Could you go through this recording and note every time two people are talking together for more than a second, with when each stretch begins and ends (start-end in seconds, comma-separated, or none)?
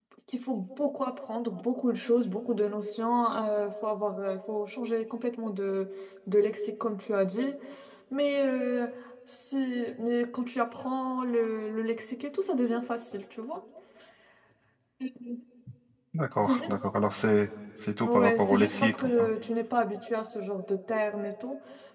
18.1-19.3